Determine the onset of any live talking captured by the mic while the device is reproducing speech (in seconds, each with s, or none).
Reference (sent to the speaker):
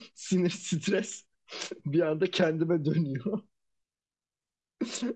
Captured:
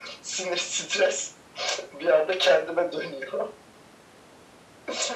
none